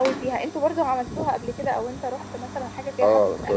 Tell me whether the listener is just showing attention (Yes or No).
No